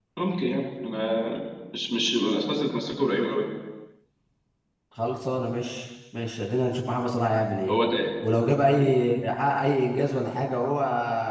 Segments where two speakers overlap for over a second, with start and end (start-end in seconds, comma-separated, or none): none